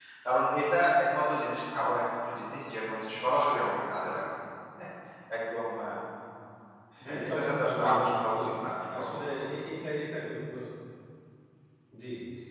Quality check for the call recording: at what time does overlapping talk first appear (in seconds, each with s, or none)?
7.0 s